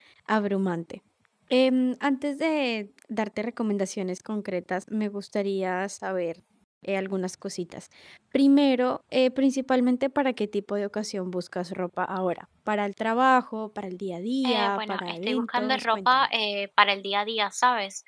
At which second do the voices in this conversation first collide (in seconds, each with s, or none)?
14.4 s